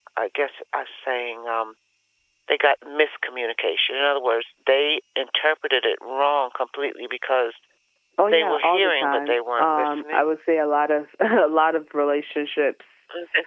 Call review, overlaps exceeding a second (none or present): present